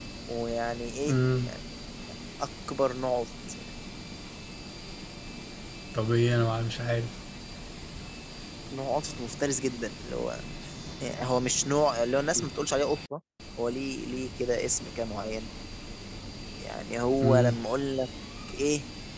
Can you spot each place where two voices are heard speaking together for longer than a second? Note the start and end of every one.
none

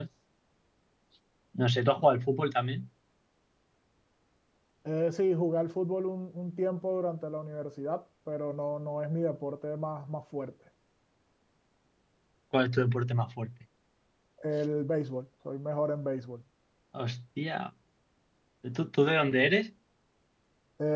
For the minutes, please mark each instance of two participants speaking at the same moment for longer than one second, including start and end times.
none

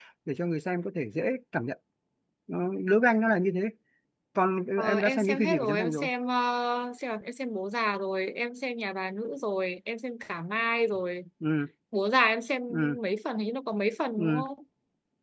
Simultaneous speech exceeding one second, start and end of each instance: 4.8-6.1

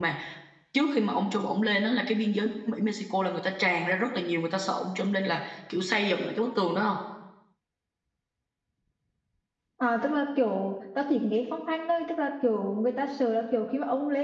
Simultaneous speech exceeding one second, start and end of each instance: none

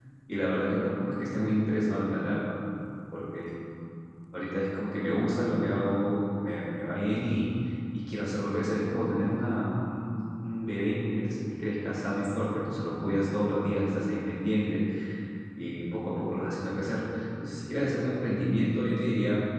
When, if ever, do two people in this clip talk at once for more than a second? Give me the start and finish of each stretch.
none

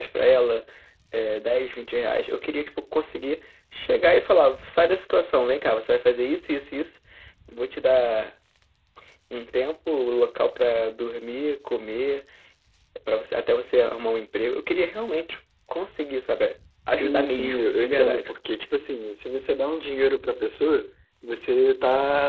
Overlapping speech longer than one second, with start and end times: 16.9-18.3

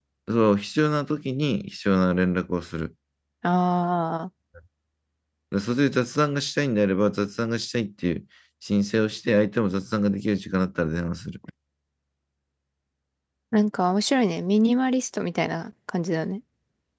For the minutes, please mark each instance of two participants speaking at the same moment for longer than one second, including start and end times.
none

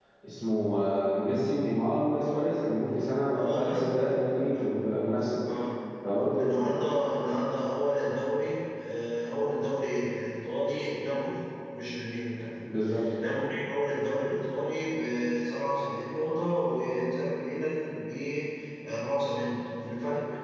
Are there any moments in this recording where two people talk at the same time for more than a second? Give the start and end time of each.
none

